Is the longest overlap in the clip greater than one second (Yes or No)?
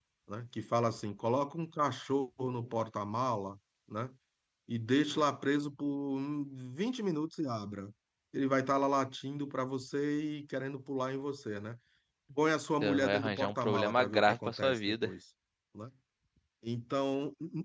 Yes